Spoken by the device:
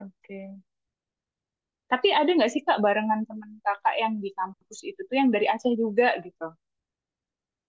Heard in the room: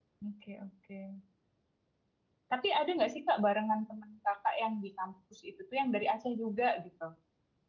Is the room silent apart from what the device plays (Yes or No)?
Yes